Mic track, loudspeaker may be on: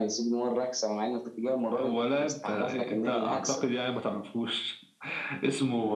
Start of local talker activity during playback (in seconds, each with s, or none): none